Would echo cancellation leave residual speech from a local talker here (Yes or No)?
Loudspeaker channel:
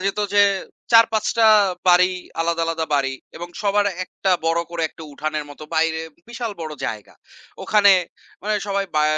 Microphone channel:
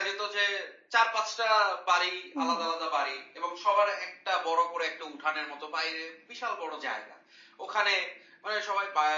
Yes